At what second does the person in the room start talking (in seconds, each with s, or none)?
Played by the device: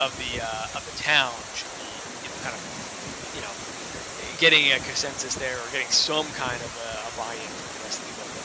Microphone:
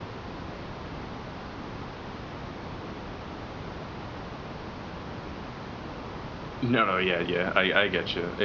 6.6 s